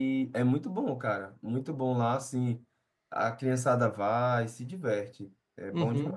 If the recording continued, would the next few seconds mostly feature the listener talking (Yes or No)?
Yes